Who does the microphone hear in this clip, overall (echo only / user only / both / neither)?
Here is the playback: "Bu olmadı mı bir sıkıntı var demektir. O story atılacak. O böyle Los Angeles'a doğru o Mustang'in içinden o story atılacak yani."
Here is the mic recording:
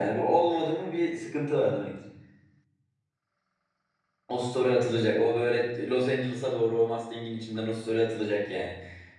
echo only